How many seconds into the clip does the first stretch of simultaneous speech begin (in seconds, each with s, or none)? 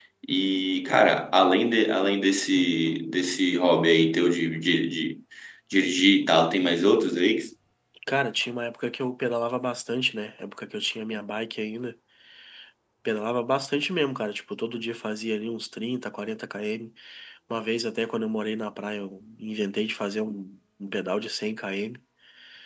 none